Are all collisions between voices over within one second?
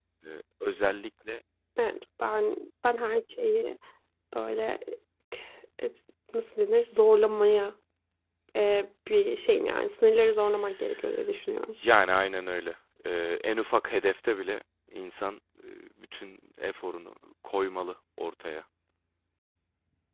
Yes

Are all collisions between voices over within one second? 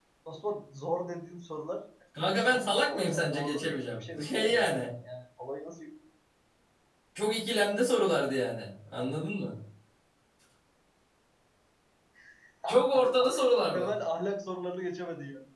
No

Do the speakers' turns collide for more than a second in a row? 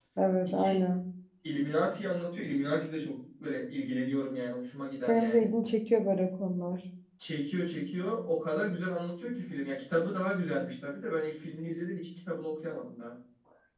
No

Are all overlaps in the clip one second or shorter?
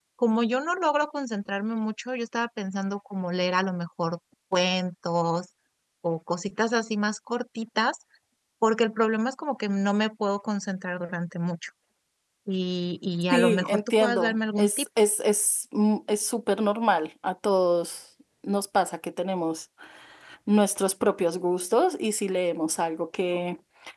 No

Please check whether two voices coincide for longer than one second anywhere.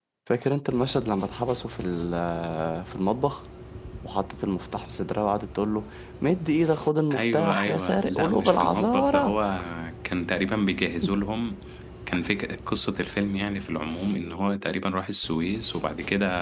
Yes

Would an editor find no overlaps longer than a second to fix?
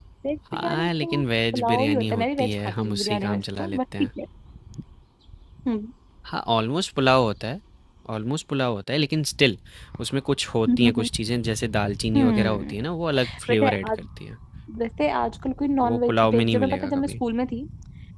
No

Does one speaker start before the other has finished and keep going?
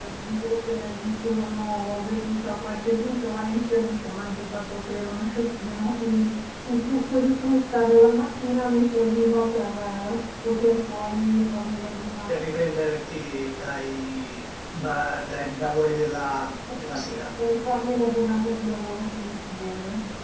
No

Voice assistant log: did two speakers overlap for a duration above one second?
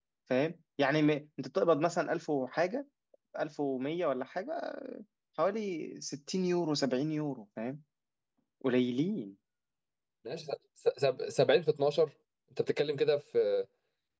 No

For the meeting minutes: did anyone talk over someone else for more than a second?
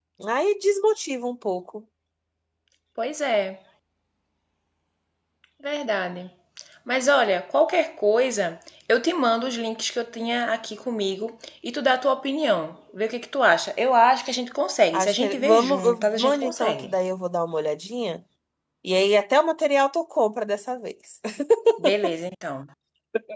Yes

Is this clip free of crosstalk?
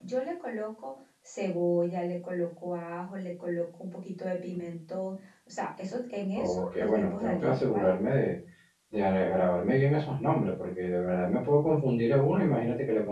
No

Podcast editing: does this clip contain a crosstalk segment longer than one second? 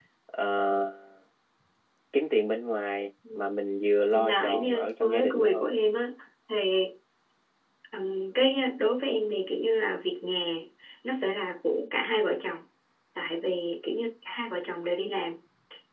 Yes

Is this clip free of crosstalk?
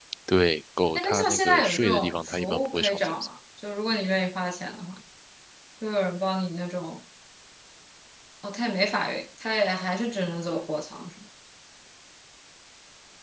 No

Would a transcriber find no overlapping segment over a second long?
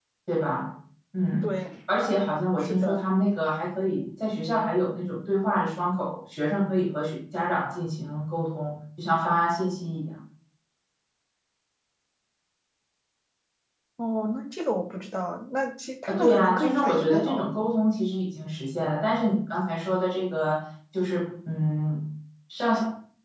No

